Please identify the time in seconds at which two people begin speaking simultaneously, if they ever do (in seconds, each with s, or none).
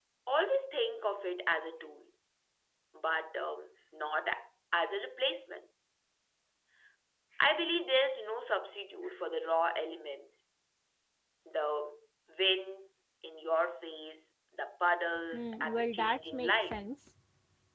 15.3 s